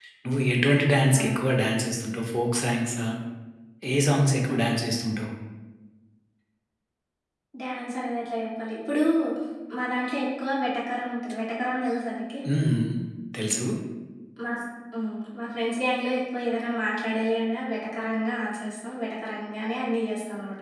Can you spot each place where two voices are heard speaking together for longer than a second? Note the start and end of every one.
none

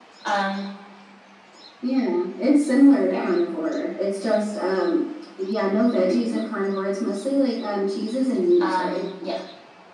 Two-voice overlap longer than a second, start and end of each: none

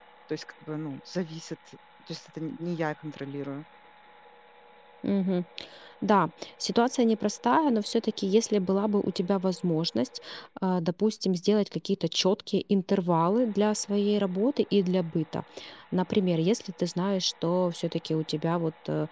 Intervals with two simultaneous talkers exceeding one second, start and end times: none

